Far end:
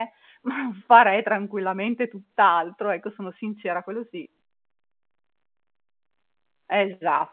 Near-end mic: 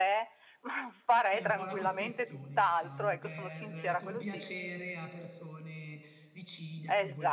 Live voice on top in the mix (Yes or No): No